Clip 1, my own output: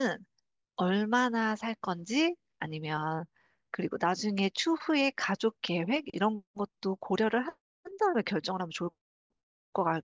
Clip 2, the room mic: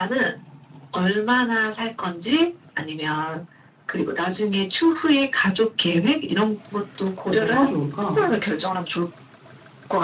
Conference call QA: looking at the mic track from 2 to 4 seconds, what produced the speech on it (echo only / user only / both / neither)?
echo only